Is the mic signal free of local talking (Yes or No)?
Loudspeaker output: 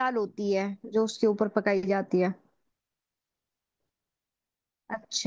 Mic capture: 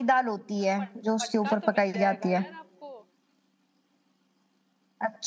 No